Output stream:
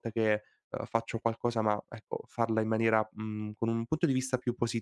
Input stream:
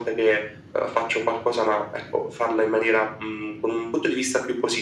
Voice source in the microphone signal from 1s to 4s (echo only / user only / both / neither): echo only